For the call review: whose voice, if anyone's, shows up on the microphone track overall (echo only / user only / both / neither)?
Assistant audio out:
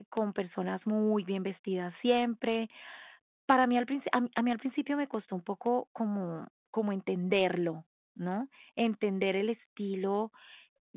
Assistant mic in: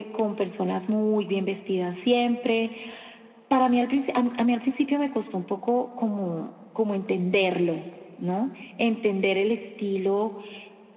echo only